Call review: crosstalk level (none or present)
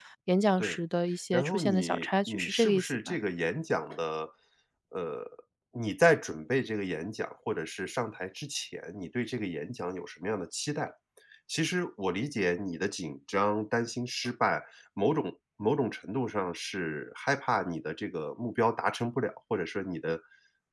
present